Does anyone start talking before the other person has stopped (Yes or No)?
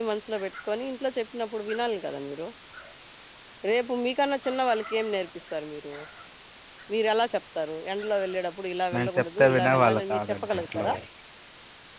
Yes